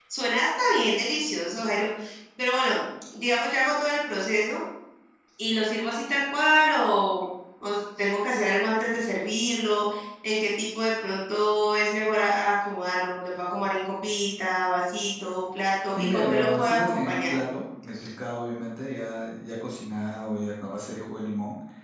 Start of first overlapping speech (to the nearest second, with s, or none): 16 s